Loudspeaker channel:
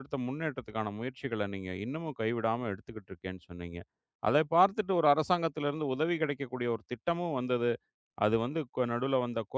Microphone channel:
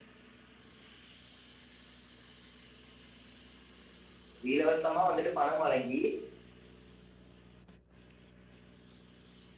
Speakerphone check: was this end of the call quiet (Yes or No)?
No